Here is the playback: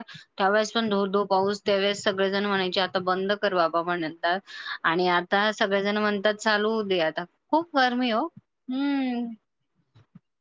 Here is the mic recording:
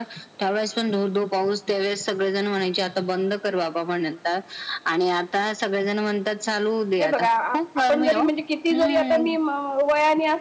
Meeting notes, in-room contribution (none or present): present